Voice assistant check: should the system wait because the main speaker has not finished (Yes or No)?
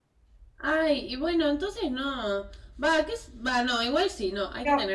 No